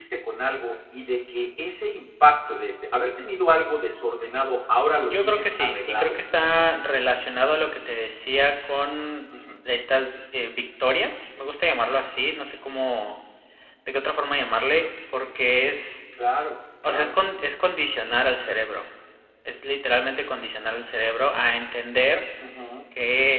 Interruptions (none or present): present